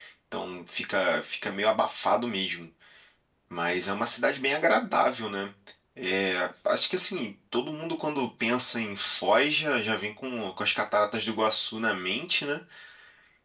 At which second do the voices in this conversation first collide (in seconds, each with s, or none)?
none